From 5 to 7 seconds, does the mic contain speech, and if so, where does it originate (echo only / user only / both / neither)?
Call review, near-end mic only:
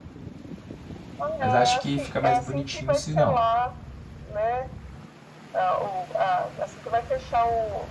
echo only